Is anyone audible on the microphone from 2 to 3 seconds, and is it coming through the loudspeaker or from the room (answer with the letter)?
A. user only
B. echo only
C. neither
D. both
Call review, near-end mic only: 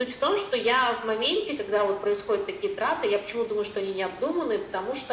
B